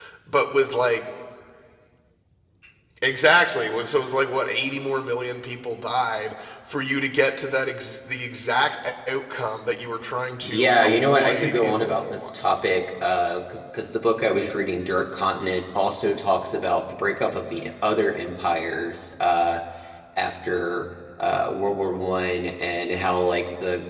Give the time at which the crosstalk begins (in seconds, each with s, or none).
10.4 s